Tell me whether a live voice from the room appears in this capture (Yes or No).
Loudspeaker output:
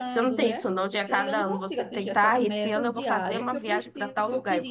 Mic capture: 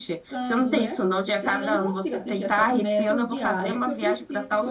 No